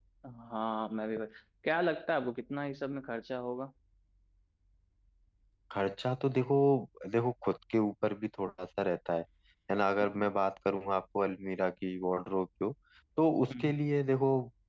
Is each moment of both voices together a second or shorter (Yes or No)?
Yes